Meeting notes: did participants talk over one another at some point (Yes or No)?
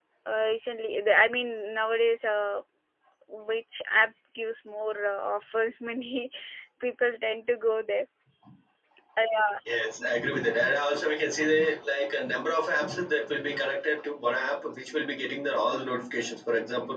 No